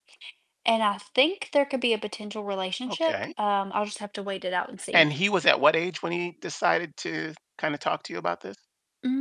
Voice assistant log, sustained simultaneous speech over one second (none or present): none